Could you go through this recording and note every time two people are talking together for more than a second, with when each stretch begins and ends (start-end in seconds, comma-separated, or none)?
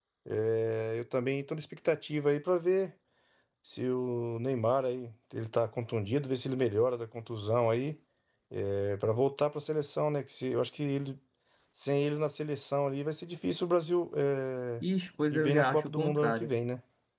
15.3-16.5